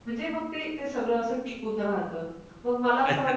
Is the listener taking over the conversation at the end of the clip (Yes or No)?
No